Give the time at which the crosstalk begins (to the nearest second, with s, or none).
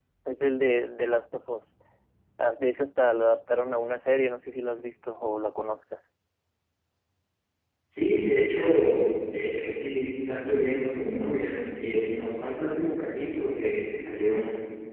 none